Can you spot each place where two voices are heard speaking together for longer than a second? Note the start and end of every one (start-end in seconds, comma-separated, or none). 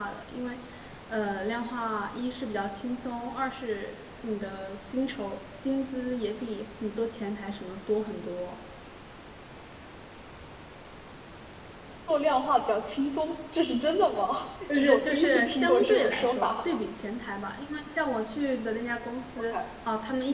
14.7-16.6